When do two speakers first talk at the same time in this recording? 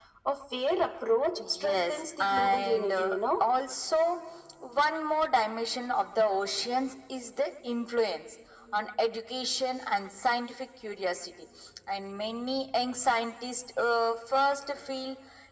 1.4 s

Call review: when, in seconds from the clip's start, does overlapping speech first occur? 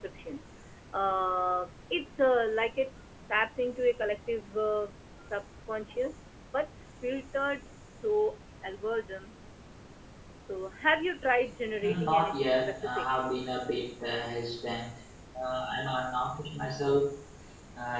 11.8 s

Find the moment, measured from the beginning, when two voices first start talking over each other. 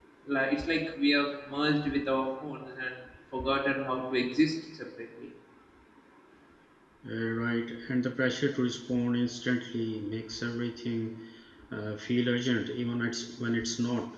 none

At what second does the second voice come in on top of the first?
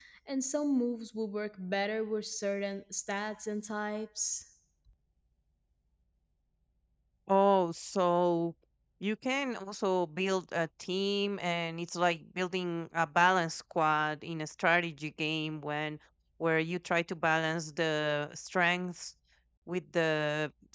none

